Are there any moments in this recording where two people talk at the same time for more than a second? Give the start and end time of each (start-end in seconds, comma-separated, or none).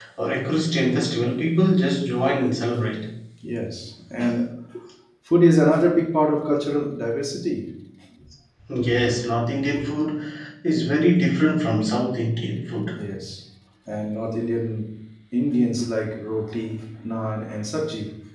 none